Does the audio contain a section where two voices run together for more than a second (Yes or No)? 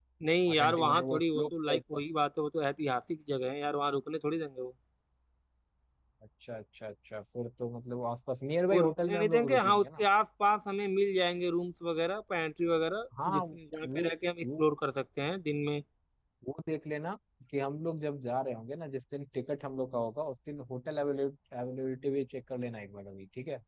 Yes